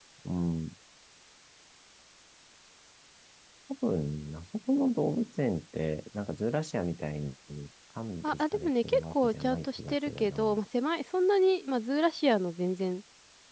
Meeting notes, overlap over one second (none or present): present